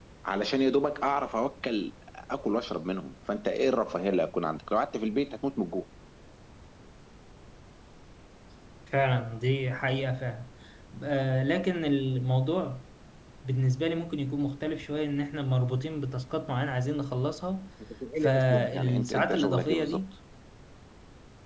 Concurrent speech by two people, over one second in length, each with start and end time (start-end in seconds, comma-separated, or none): 18.2-20.0